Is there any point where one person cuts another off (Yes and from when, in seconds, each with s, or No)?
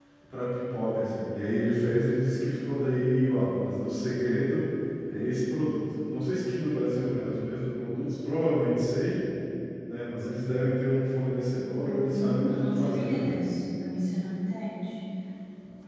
Yes, from 11.8 s